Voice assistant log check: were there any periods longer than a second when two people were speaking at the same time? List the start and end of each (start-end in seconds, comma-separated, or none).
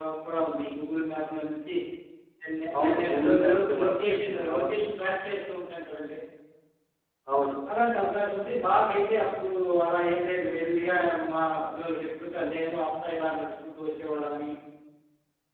2.8-4.8